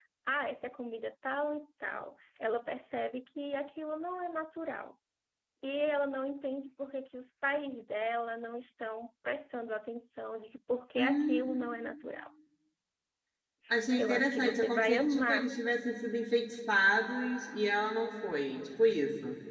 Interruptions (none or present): present